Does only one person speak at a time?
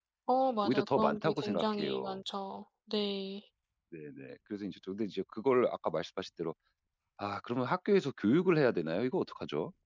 No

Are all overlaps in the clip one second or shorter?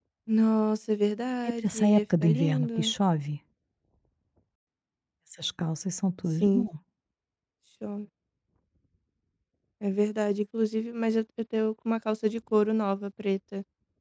No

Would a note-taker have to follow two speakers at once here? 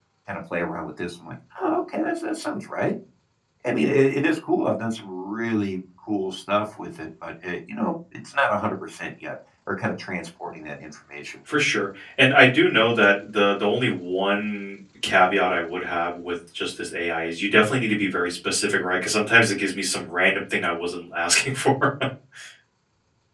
No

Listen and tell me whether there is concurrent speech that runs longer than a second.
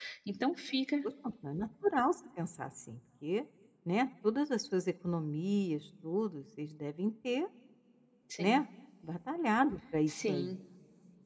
No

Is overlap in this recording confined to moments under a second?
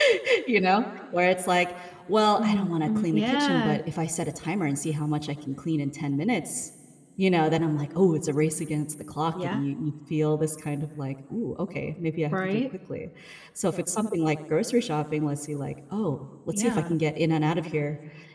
No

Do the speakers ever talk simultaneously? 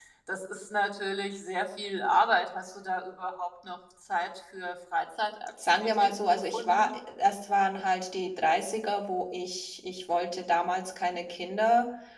Yes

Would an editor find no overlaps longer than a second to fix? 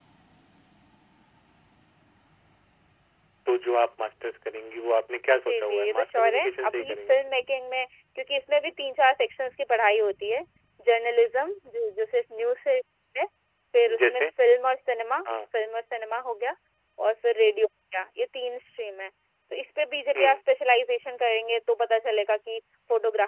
No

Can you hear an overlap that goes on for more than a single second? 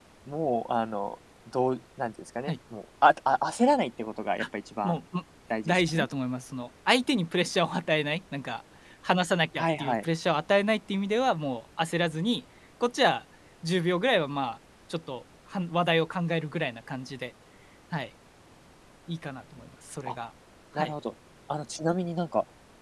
No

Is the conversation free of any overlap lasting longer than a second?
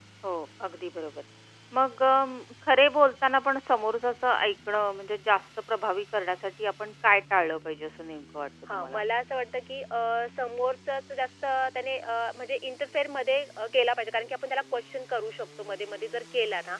Yes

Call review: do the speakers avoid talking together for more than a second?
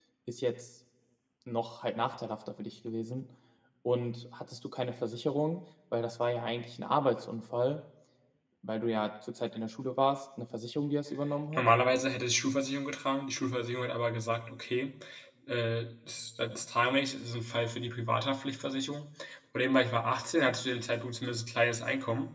Yes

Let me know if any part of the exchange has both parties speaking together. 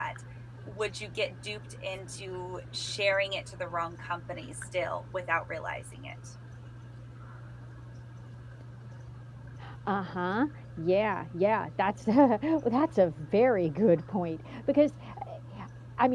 No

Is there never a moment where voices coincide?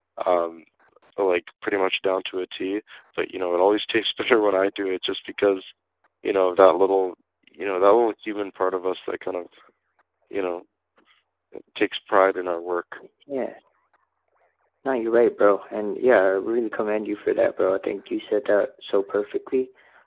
Yes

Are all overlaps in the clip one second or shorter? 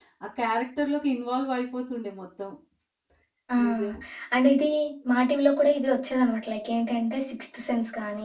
Yes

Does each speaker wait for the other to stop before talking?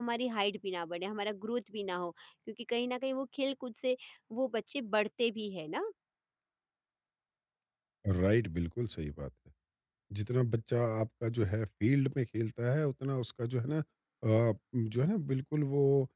Yes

